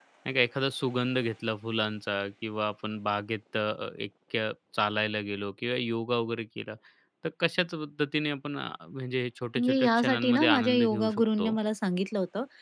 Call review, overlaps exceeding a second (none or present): present